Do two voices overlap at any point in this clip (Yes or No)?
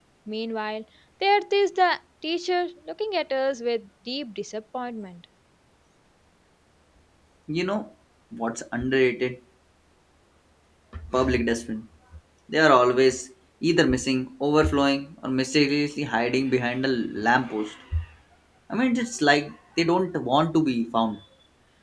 No